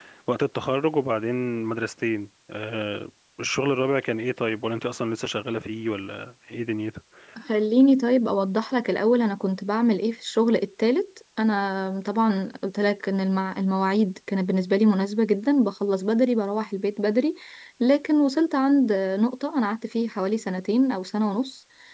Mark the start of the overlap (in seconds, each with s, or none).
none